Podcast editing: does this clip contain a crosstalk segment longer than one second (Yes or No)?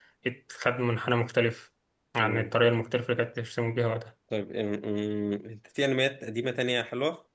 No